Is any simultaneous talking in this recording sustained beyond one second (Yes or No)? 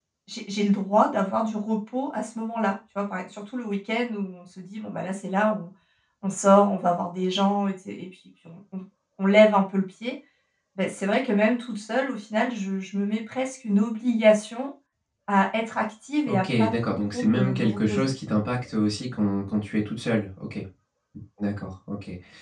Yes